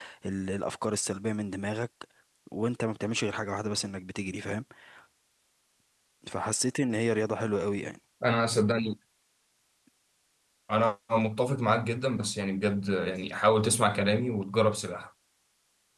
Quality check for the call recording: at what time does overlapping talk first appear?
none

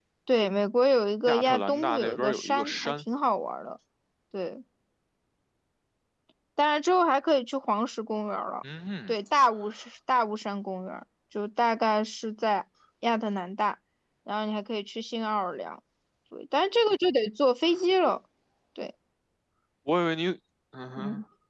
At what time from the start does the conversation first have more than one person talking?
1 s

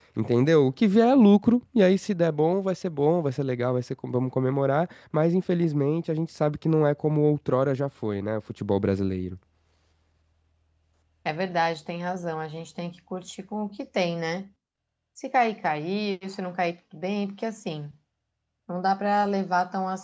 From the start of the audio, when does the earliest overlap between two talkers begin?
none

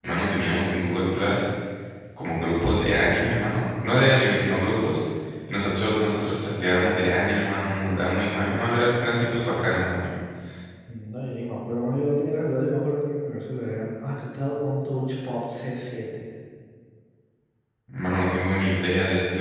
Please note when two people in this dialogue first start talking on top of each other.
none

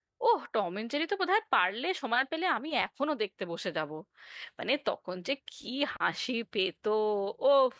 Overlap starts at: none

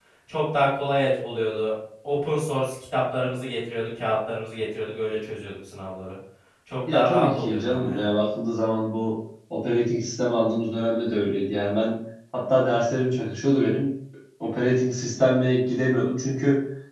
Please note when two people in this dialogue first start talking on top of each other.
7 s

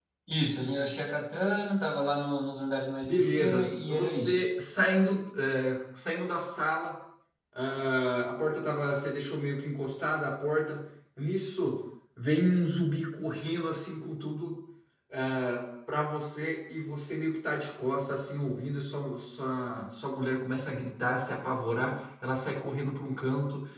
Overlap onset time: 3 s

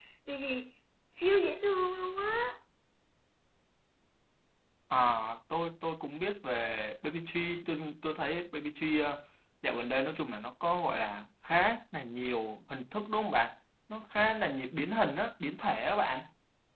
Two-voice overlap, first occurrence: none

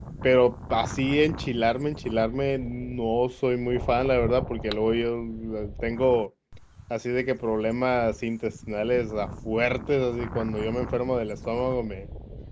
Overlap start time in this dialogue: none

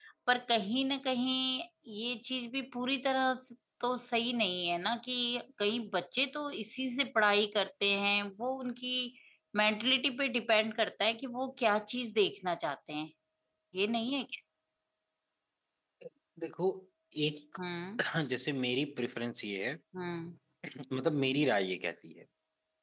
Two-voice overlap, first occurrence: none

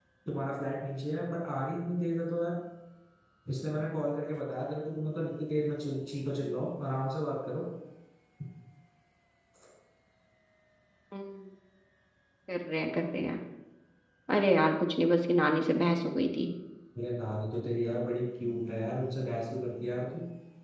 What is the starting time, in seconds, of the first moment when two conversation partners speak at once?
none

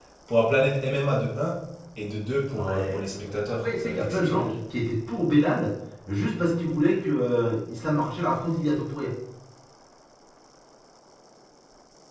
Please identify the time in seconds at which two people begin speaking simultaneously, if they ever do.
3 s

